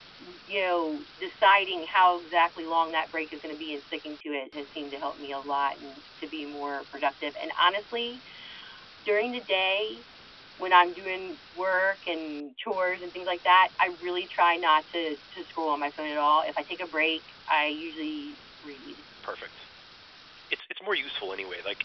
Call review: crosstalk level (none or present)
none